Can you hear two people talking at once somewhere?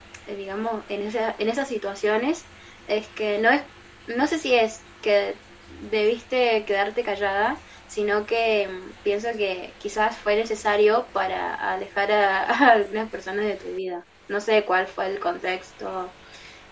No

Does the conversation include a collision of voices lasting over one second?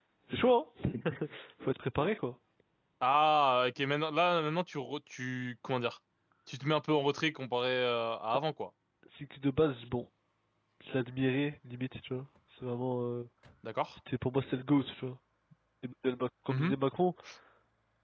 No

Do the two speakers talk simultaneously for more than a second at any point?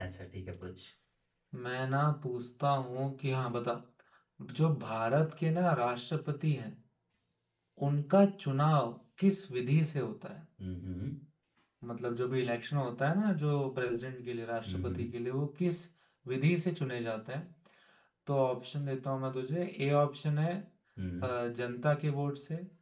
No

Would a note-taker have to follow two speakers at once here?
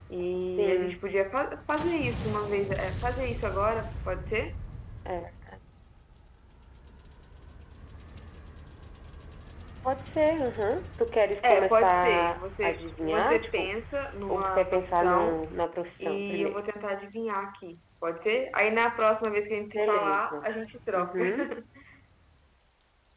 Yes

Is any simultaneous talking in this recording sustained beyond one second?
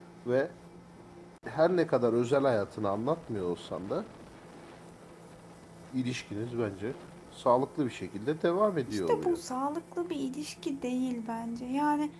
No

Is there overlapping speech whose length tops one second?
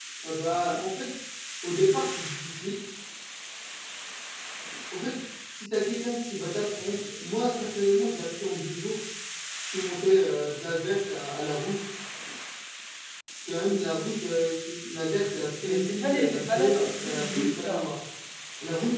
Yes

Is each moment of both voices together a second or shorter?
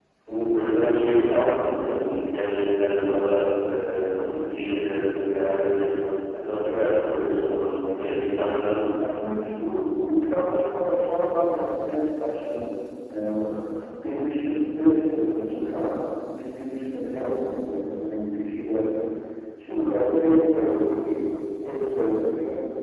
Yes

